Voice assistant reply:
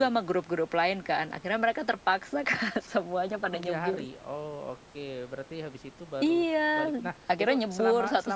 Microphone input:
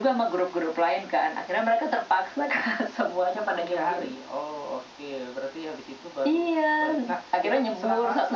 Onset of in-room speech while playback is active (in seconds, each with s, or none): none